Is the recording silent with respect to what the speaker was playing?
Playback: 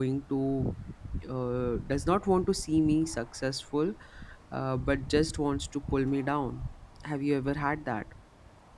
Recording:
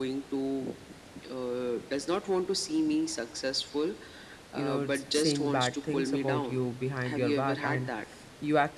No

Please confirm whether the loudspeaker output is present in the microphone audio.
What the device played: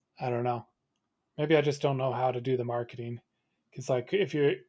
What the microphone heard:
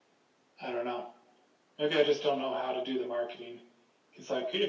Yes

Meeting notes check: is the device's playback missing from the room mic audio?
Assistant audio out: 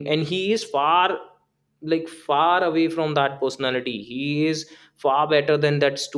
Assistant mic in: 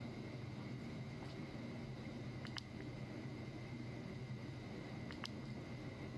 Yes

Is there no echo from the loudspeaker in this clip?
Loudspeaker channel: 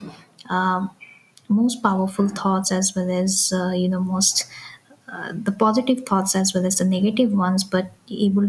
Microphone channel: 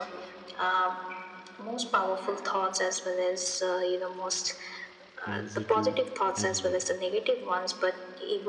No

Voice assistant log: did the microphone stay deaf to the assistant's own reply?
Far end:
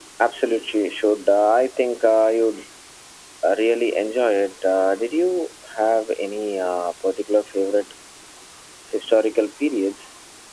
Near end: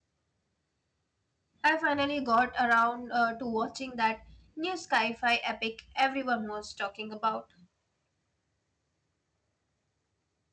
Yes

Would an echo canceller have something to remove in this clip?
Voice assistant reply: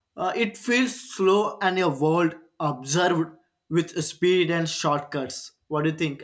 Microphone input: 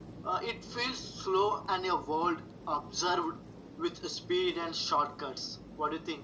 Yes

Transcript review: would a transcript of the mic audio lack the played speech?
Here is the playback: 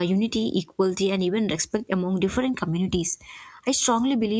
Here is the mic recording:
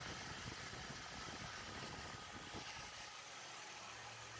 Yes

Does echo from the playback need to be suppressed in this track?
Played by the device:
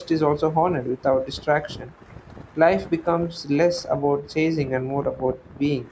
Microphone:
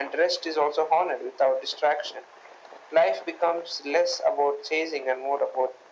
Yes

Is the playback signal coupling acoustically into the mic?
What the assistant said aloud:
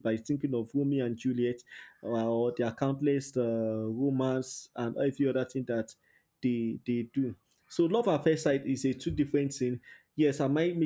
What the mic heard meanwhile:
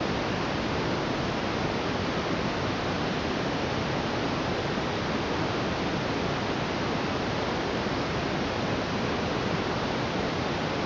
No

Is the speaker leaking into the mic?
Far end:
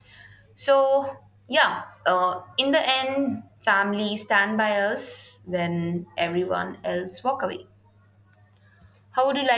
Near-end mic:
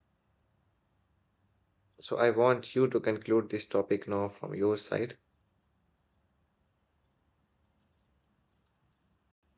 No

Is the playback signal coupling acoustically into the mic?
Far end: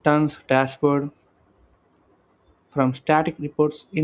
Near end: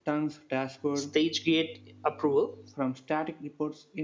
Yes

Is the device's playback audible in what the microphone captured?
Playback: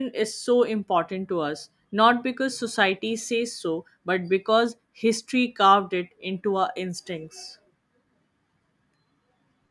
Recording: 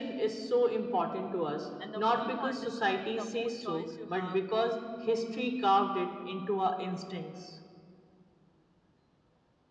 Yes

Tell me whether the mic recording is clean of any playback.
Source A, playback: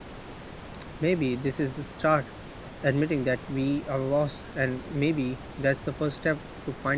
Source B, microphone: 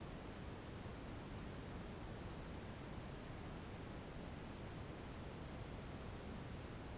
Yes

